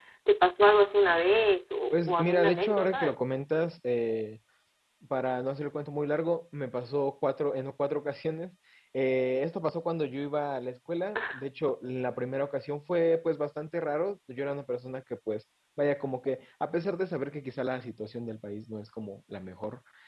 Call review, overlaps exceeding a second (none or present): present